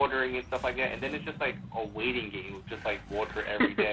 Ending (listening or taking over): listening